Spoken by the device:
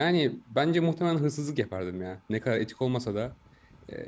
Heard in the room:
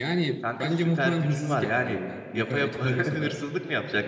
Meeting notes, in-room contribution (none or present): present